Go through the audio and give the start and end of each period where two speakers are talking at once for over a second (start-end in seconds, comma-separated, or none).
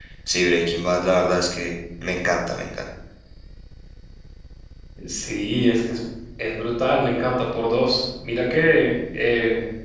none